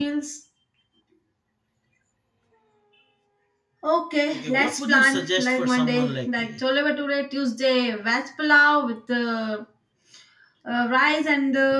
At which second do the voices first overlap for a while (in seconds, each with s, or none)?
4.3 s